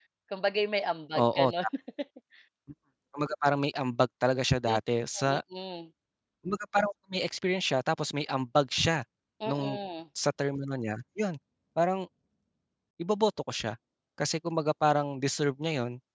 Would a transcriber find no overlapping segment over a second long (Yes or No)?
Yes